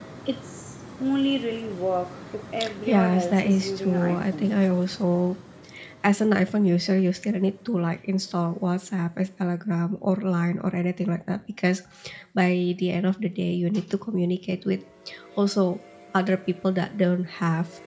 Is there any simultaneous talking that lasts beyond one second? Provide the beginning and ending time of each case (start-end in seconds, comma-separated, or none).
2.9-4.5